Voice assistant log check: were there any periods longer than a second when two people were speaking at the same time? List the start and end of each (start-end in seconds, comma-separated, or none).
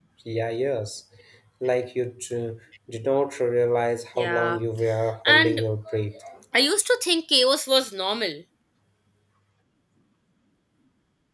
none